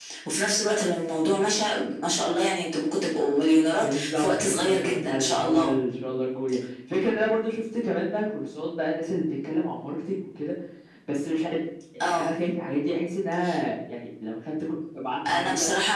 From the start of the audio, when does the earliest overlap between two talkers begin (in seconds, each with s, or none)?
3.8 s